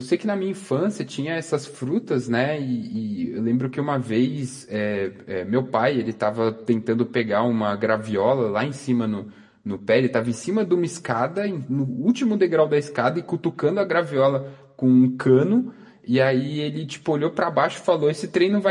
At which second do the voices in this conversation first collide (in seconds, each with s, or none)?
none